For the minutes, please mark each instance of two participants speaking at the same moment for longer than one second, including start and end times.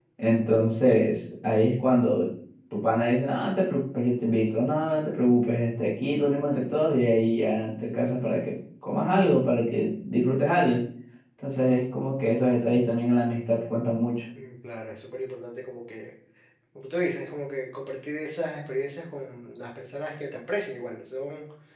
none

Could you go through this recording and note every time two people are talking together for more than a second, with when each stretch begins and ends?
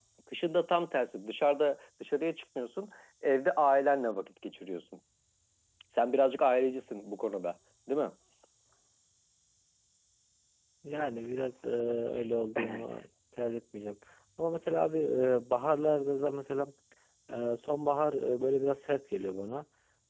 none

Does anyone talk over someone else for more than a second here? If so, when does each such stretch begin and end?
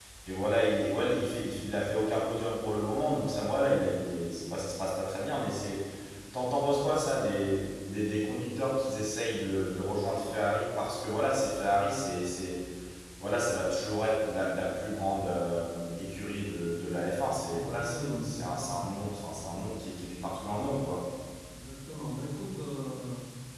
17.5-18.7

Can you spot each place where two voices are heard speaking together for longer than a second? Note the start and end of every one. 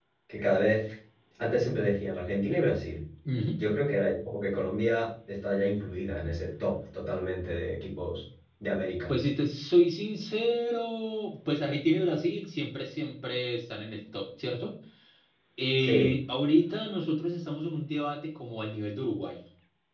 none

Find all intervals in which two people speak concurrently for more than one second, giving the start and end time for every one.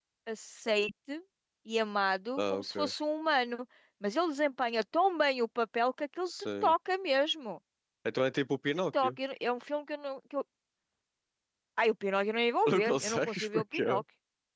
12.7-14.0

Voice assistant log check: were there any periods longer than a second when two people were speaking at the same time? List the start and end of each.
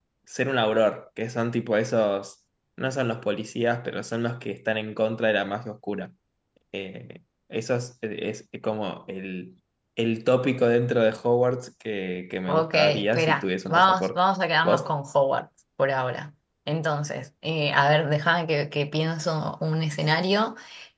12.5-14.2

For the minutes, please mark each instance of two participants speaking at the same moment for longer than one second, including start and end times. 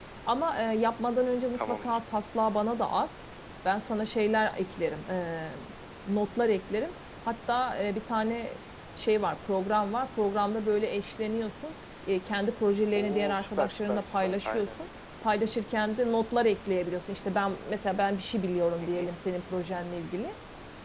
13.0-14.8

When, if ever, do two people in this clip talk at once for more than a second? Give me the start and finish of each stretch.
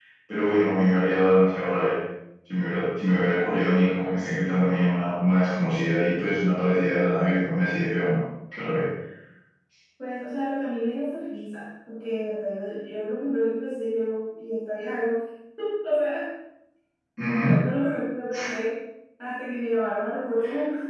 none

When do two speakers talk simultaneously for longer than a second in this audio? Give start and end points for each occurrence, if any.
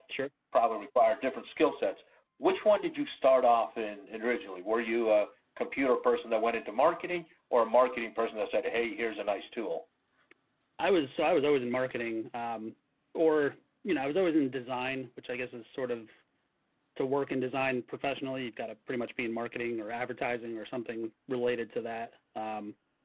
none

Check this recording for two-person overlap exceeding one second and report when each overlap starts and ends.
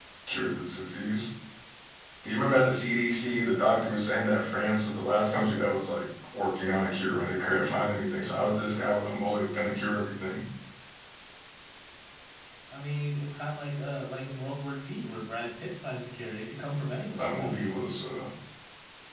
none

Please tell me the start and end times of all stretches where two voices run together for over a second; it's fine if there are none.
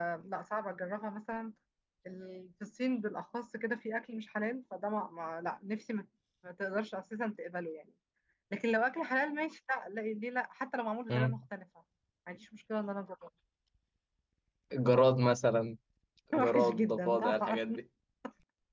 16.4-17.6

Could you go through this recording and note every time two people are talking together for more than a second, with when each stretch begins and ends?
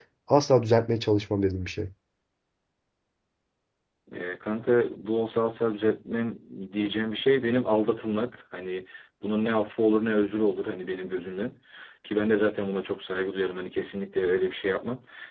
none

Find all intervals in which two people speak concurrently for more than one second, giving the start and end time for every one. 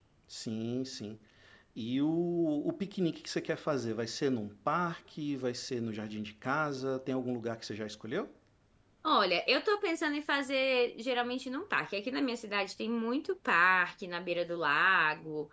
none

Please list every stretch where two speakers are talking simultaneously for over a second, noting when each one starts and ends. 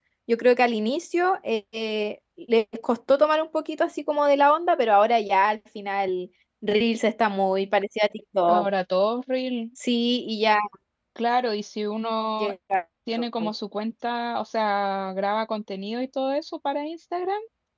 none

